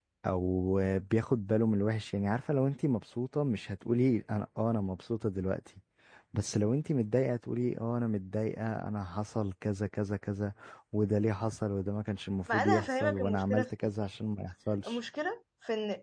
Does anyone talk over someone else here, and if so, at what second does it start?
12.5 s

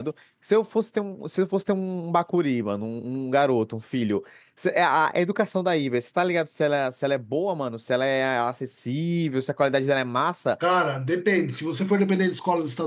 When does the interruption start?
none

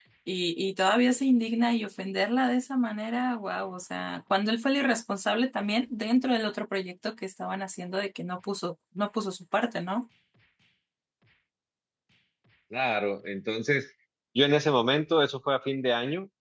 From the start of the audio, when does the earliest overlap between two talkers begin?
none

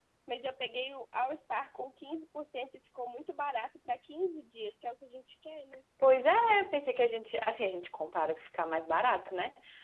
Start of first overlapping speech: none

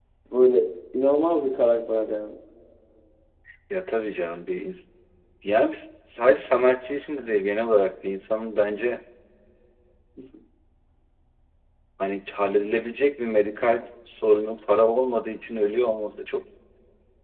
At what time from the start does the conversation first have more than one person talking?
none

